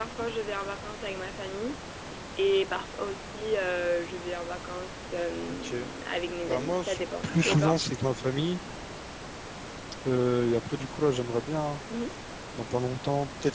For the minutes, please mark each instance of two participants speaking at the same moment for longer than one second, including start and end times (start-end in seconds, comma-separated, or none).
6.4-7.8